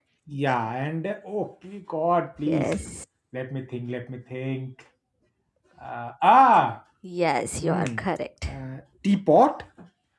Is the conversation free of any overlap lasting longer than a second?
Yes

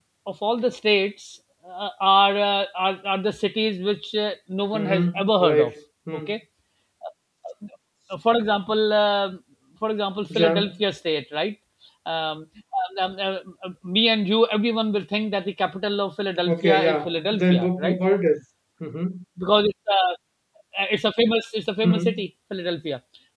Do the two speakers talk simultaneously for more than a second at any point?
Yes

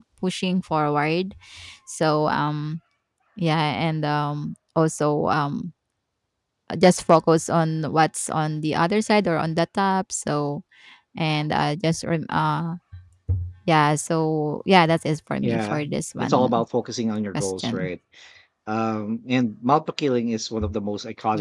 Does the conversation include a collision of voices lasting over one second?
Yes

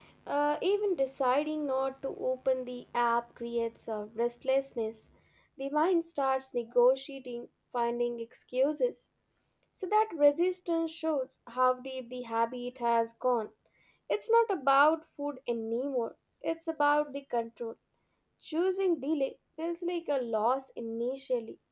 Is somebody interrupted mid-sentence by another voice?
No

